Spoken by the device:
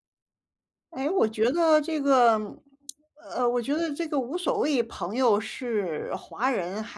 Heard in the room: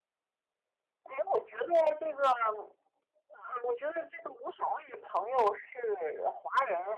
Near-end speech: none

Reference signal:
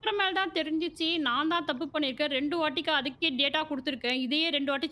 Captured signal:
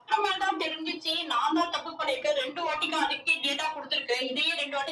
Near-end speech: none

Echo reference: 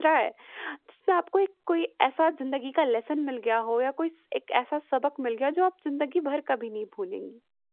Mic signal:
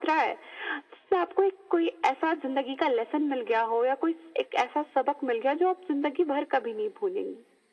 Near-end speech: none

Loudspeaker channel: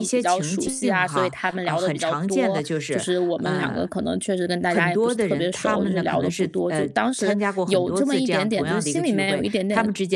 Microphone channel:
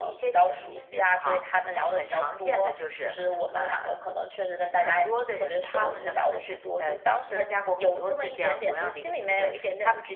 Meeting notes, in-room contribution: none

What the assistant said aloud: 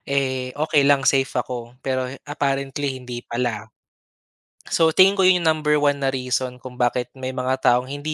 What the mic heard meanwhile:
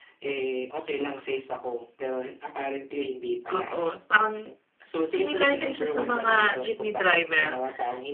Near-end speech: present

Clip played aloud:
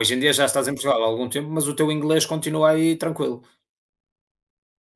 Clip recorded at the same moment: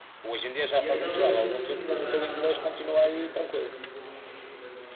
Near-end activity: present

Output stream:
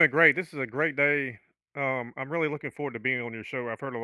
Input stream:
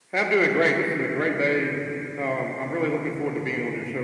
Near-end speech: none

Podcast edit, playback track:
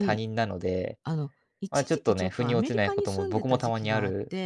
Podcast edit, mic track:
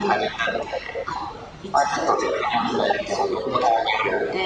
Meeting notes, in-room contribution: none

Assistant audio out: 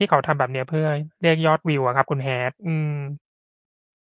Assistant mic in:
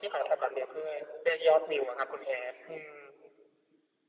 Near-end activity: none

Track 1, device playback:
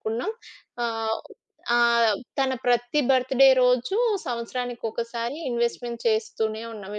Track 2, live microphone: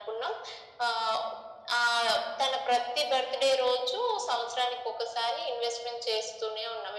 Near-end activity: none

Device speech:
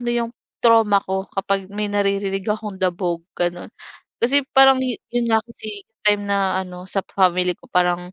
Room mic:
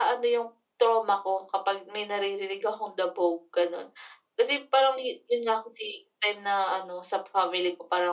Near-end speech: none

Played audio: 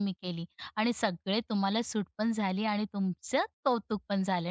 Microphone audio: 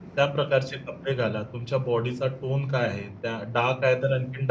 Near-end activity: present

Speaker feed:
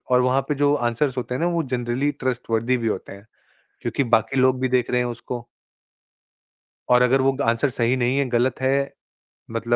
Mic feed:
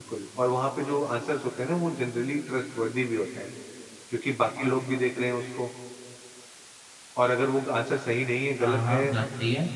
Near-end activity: present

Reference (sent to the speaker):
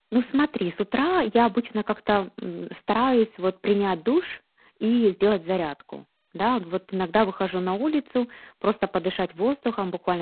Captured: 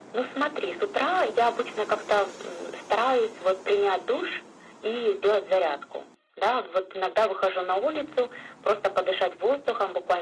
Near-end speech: none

